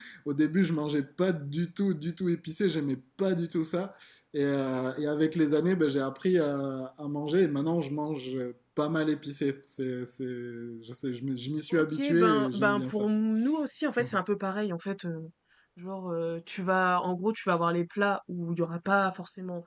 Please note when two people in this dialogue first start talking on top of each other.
11.7 s

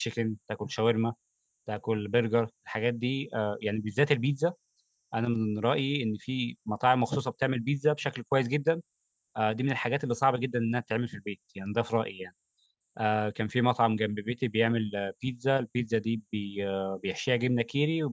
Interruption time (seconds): none

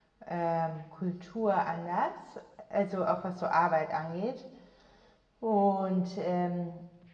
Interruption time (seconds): none

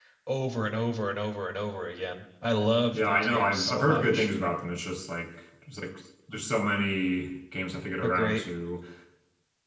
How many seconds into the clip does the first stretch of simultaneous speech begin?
2.9 s

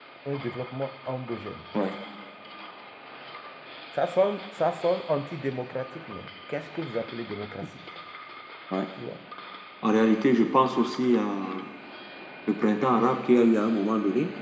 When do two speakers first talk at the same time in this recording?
none

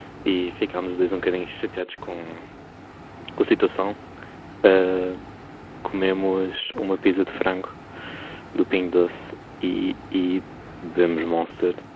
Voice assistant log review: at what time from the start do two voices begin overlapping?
none

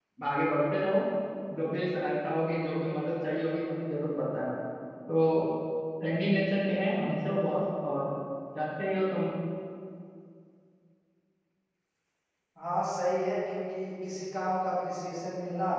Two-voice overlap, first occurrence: none

